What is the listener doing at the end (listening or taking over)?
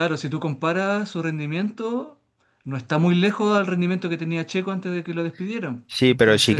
taking over